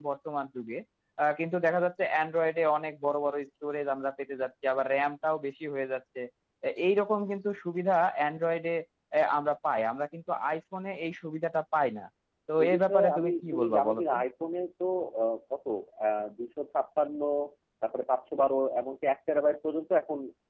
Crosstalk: present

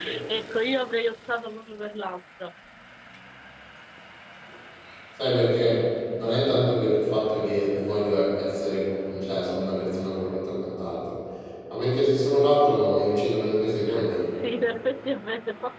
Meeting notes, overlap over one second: none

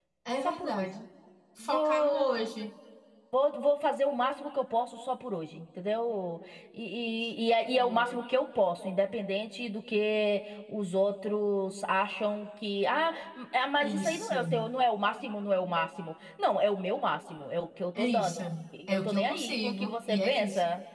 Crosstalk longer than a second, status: present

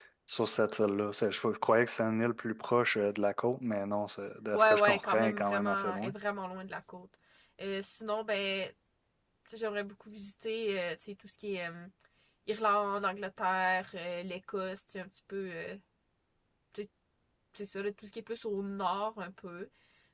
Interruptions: present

